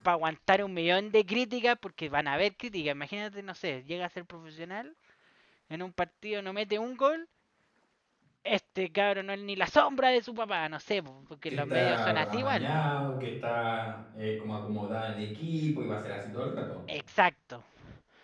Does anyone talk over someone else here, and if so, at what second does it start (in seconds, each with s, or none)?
11.5 s